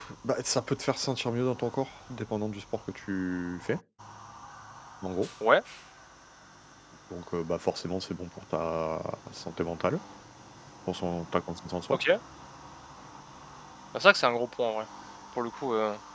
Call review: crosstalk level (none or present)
none